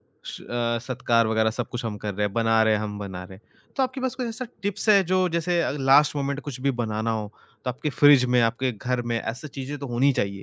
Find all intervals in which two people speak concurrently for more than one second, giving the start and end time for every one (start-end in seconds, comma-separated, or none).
none